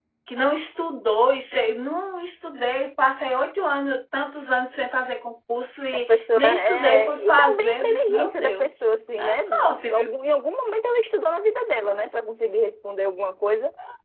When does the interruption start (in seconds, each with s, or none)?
5.9 s